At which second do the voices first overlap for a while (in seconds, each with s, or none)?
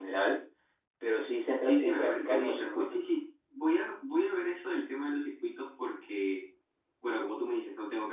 1.6 s